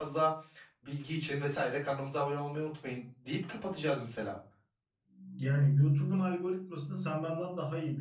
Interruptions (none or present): none